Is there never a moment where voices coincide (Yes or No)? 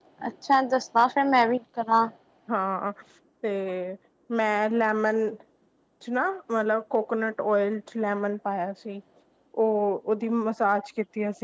Yes